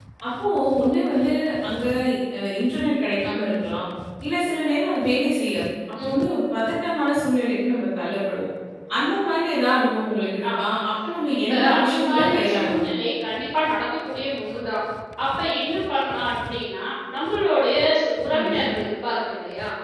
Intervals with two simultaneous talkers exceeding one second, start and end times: 11.3-12.8

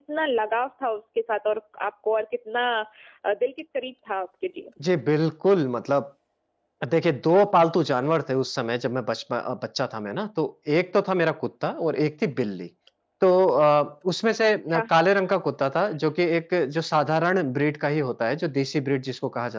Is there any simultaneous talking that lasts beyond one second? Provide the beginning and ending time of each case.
none

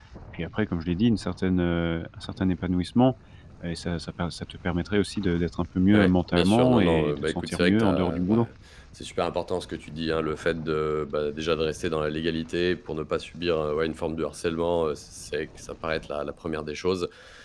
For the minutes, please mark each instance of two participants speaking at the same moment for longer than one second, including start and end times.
5.9-8.4

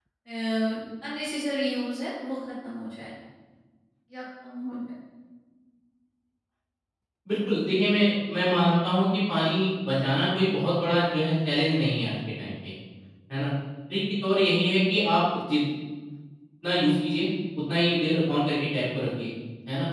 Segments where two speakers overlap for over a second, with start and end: none

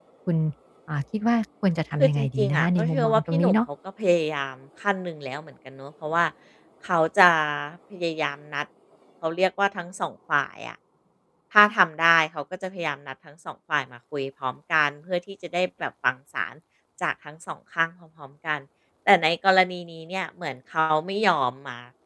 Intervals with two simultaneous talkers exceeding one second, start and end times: 2.0-3.6

